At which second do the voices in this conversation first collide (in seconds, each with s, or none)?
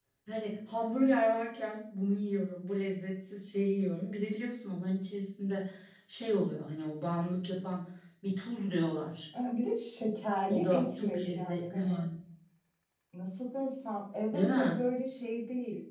10.5 s